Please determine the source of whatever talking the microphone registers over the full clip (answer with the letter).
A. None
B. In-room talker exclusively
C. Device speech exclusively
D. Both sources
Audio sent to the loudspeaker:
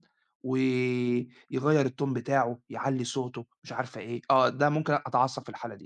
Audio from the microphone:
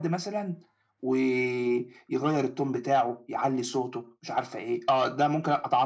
C